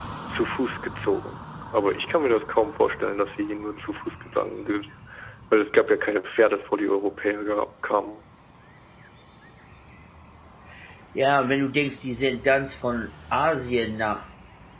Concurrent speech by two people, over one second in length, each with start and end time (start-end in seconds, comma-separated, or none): none